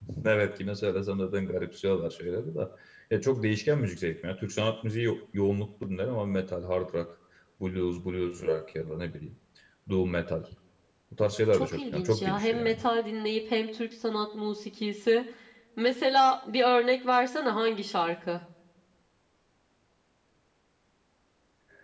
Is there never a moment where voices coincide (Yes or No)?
No